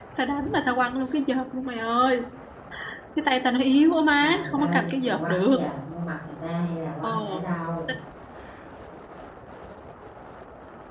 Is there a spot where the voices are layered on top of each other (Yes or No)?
Yes